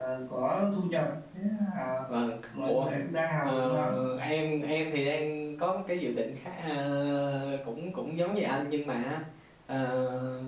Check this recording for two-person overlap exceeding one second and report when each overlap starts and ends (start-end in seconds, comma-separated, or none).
none